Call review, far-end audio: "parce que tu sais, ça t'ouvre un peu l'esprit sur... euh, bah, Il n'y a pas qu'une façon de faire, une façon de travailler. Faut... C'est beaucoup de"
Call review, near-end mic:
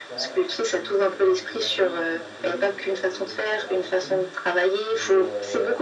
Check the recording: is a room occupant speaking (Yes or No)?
Yes